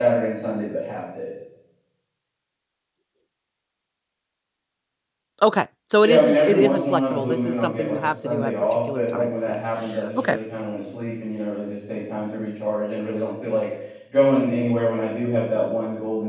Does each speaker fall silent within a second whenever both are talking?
No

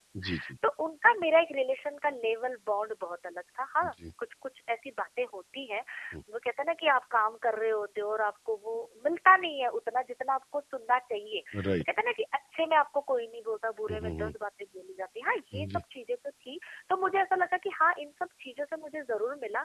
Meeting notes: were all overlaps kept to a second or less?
Yes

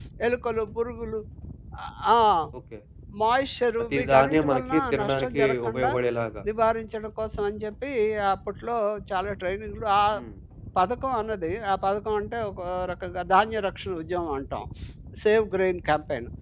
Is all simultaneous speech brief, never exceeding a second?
No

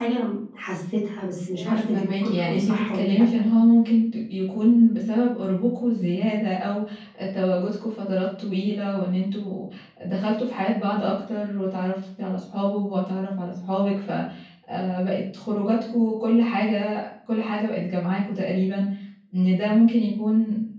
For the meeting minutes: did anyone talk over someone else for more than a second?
Yes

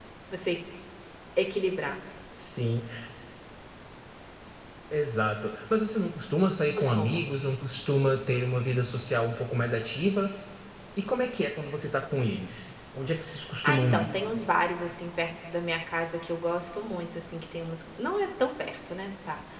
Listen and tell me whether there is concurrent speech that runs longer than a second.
No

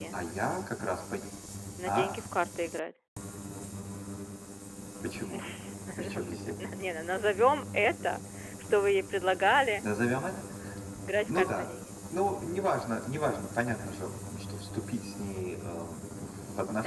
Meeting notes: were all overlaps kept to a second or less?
Yes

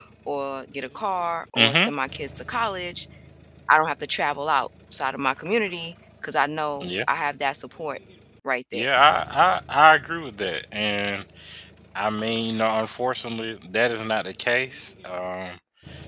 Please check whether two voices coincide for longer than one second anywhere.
No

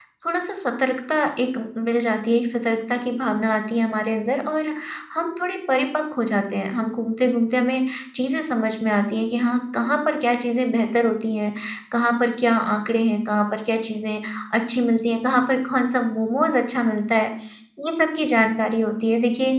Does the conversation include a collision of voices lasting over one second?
No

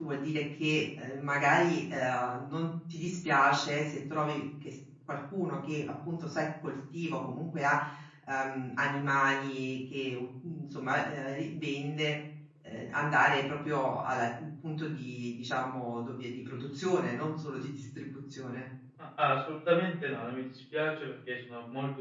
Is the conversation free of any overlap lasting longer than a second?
Yes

